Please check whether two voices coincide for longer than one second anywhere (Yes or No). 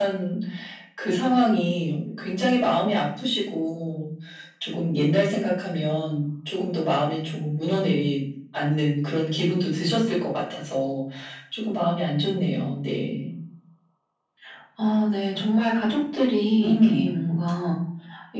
No